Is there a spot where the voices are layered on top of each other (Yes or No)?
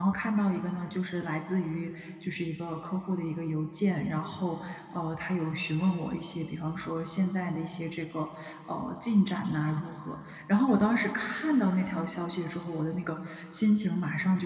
No